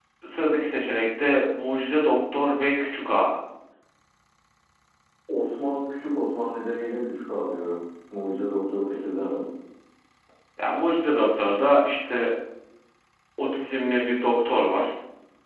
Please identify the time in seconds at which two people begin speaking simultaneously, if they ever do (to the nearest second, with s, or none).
none